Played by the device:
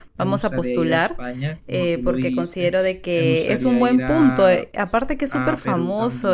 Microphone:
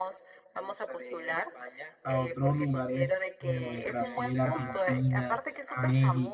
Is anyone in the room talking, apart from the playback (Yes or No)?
Yes